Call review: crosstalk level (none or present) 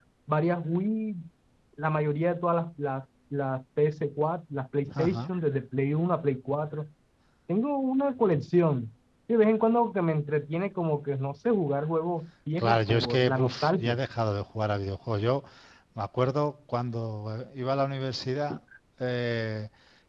present